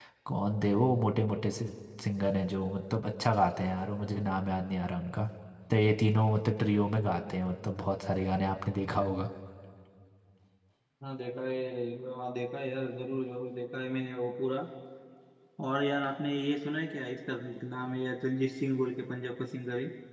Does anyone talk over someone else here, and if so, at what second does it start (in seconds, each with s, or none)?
none